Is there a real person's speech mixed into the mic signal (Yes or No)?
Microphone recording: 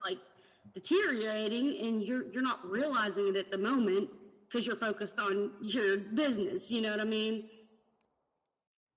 No